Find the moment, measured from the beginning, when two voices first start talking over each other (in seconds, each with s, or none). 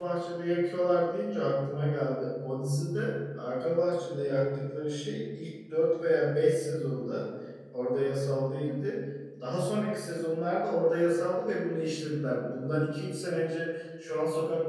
none